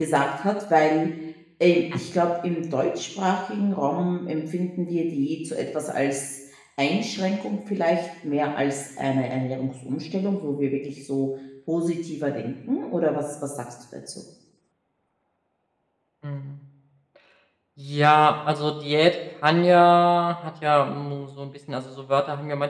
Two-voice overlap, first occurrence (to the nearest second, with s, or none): none